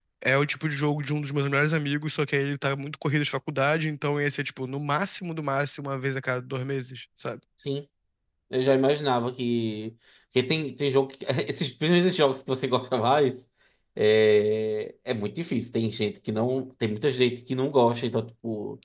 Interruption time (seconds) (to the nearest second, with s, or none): none